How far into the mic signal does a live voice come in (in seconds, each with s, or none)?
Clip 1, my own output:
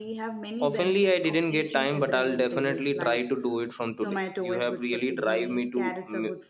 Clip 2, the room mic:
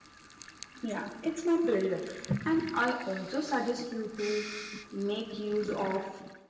0.8 s